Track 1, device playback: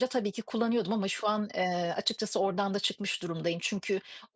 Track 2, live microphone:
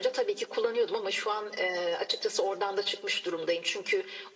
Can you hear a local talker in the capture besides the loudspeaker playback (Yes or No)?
No